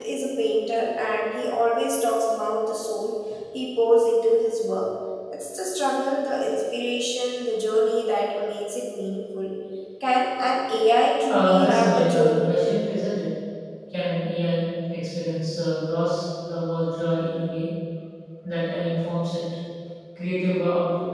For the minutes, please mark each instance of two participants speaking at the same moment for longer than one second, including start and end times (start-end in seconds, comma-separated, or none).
11.3-12.5